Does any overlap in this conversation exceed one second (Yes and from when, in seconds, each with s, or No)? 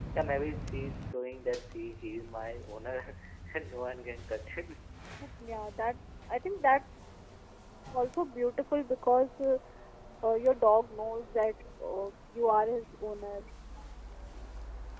No